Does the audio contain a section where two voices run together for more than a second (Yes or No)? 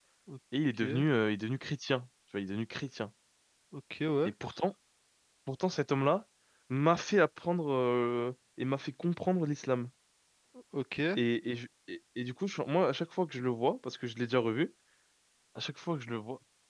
No